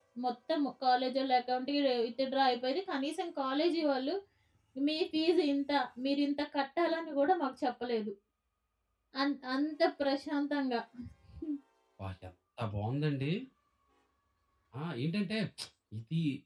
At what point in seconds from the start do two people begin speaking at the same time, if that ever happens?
none

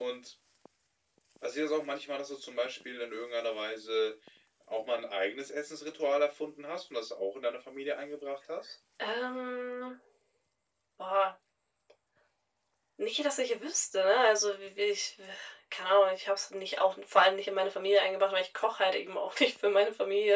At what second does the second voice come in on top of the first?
none

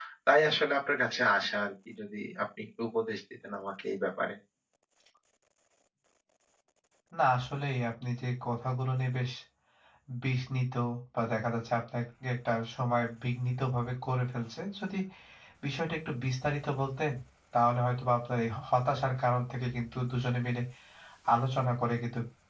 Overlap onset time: none

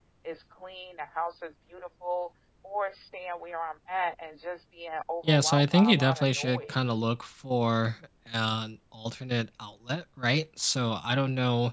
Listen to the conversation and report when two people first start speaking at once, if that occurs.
5.2 s

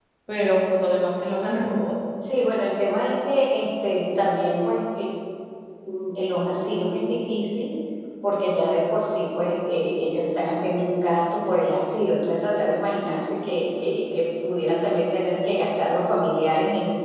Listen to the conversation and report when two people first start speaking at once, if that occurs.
none

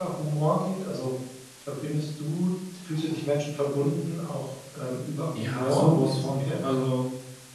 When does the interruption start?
5.3 s

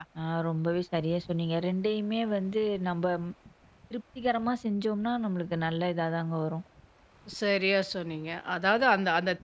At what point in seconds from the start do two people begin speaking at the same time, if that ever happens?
none

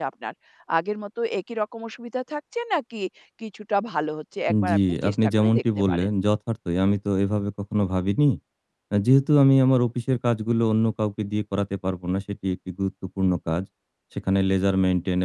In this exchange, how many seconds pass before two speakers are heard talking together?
4.5 s

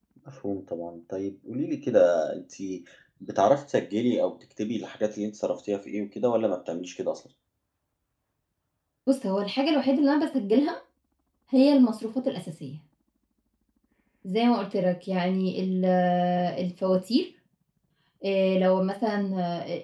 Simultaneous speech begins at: none

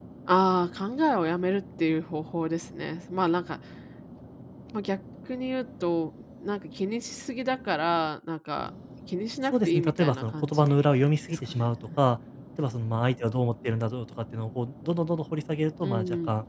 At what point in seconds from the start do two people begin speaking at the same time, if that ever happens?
9.5 s

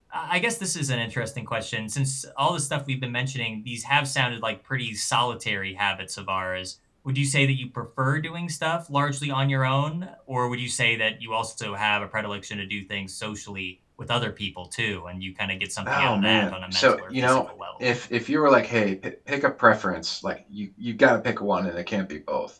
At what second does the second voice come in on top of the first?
15.9 s

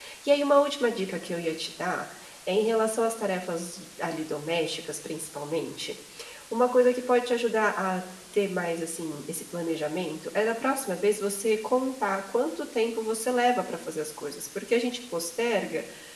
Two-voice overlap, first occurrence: none

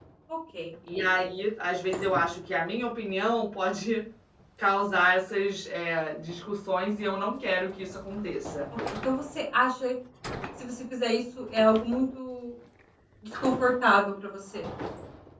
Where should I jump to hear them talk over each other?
none

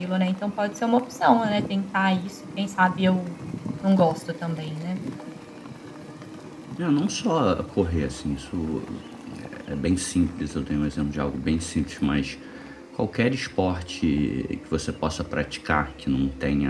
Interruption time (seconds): none

